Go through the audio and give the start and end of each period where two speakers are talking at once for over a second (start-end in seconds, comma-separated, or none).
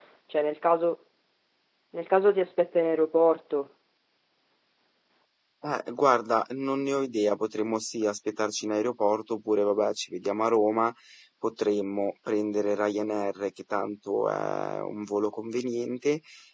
none